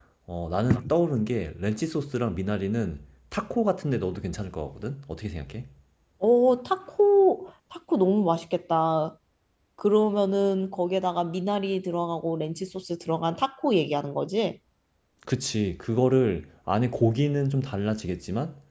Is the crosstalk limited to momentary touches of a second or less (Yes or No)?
Yes